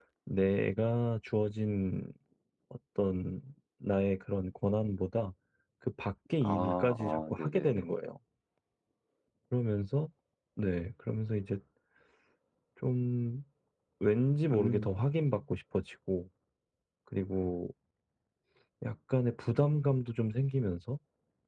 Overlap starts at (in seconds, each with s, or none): 6.4 s